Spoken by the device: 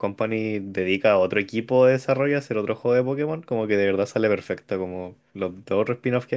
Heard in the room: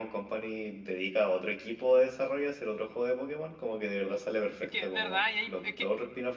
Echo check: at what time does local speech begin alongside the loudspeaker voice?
4.6 s

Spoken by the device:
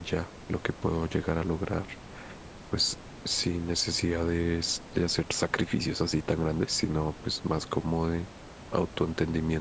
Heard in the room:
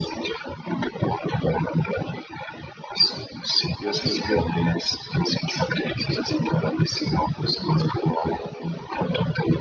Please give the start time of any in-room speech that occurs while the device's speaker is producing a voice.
3.7 s

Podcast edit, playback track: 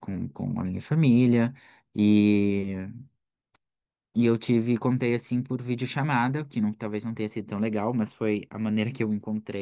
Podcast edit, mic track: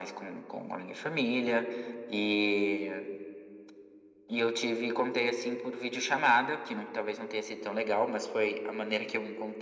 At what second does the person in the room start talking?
none

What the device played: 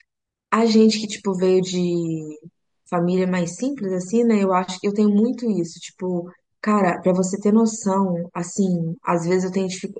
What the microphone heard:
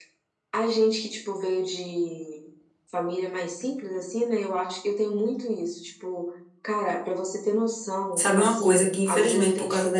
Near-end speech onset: 8.1 s

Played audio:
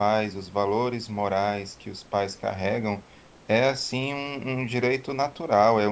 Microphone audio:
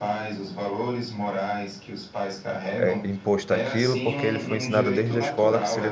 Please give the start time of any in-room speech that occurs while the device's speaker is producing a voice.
2.8 s

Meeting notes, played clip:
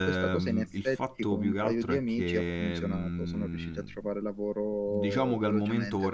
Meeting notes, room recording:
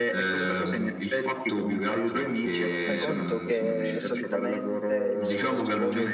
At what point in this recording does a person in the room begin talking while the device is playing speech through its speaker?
2.8 s

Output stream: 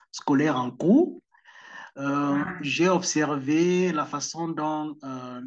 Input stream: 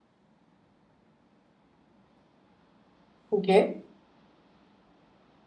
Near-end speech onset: 3.3 s

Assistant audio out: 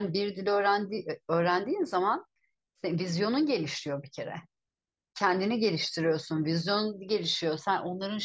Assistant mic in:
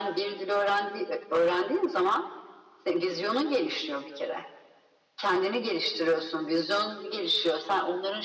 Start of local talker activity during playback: none

